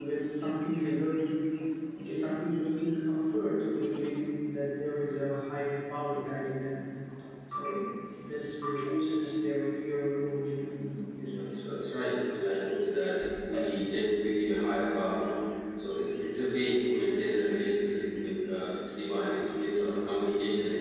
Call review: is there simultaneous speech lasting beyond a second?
No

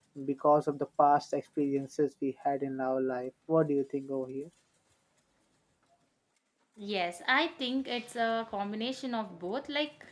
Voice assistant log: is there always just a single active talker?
Yes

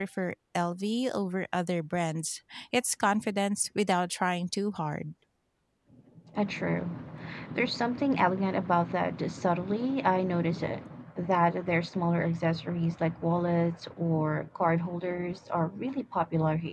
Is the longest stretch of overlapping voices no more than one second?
Yes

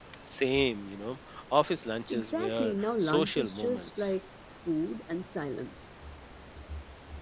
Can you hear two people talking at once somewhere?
Yes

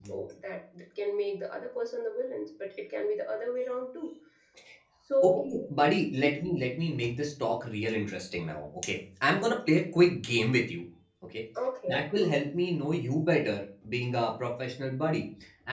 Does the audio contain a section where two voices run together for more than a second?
No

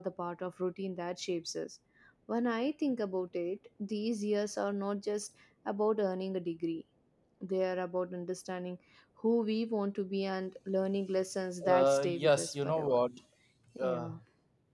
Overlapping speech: Yes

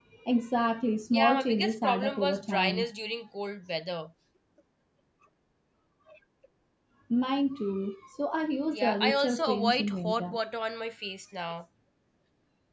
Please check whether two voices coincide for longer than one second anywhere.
Yes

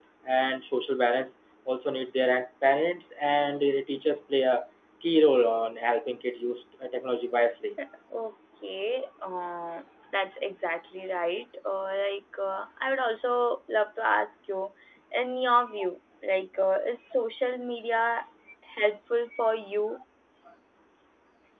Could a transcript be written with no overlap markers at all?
Yes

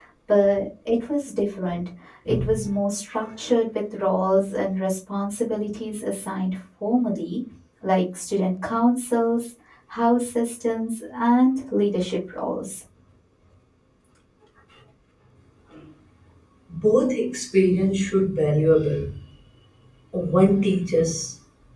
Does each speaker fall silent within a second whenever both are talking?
Yes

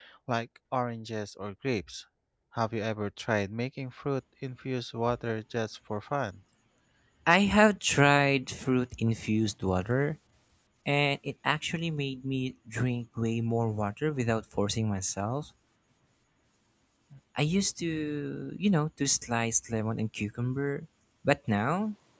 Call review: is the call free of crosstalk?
Yes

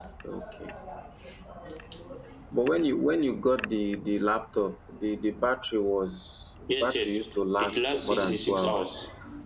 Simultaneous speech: Yes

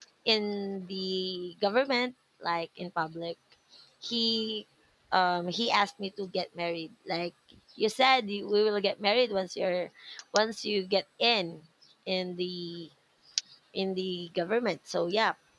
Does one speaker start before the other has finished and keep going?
No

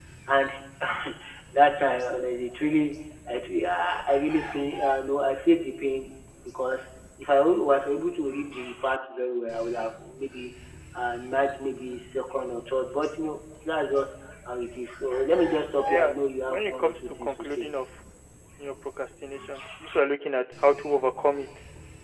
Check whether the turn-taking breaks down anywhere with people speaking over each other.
Yes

